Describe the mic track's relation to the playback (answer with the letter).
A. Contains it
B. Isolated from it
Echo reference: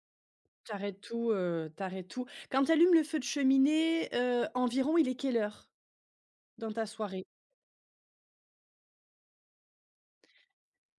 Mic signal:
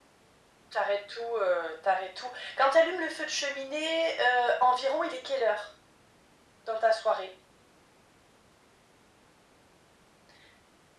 A